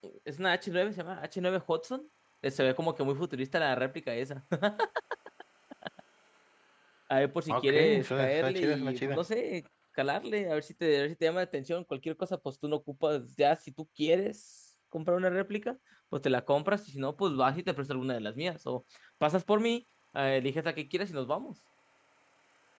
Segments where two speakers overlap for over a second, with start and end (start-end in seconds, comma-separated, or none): 7.5-9.2